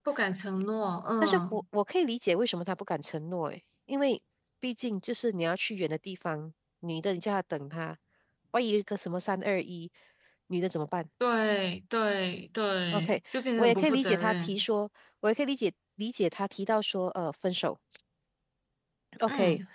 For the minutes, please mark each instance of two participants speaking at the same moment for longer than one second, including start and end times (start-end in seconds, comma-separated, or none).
12.9-14.6